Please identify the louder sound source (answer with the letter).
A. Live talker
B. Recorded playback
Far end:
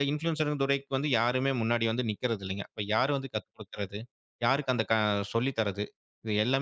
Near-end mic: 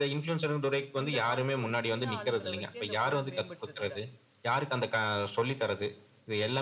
B